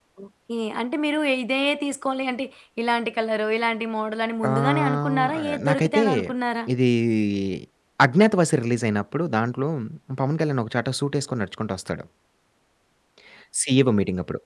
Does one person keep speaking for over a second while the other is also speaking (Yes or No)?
Yes